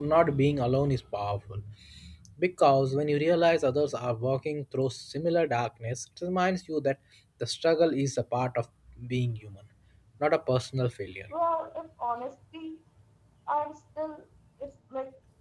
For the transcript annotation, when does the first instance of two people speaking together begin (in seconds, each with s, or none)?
none